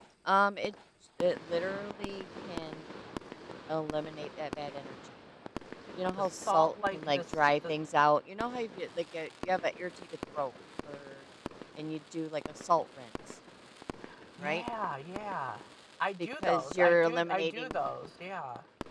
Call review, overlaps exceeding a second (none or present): present